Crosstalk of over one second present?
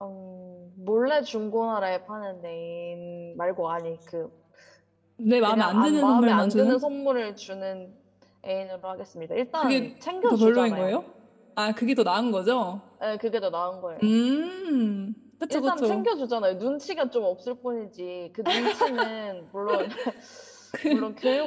Yes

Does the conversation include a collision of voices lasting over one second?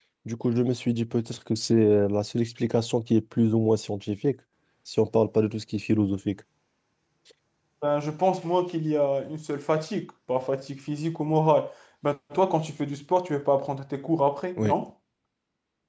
No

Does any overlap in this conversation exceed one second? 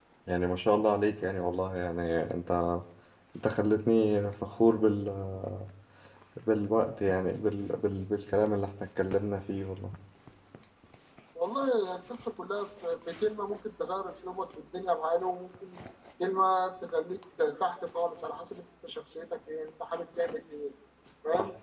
No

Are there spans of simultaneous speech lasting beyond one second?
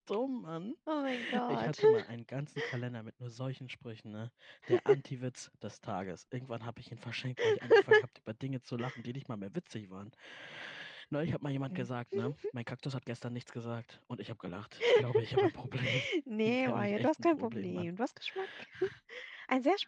Yes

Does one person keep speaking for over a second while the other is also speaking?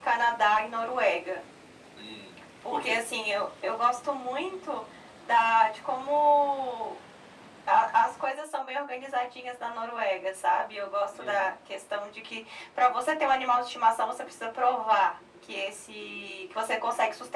No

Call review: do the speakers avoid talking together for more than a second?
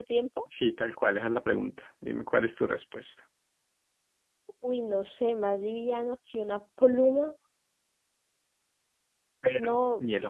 Yes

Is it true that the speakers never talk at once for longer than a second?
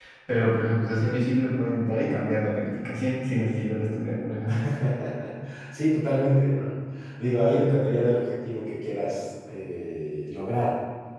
Yes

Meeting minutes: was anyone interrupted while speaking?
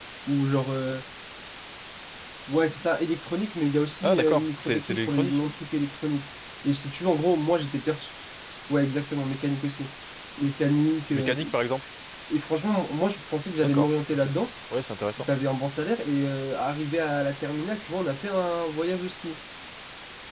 Yes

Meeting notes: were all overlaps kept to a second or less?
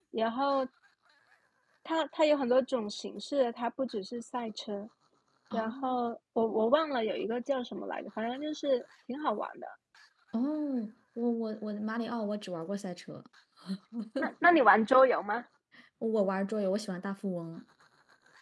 Yes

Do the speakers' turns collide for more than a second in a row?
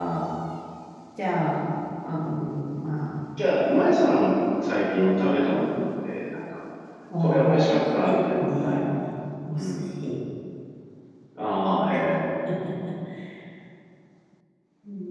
Yes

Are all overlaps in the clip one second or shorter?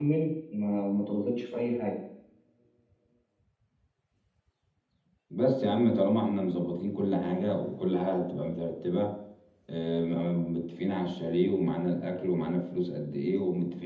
Yes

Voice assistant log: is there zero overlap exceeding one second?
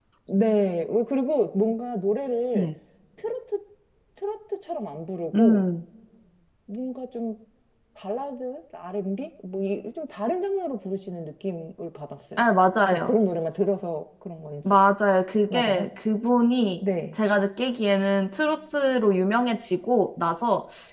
Yes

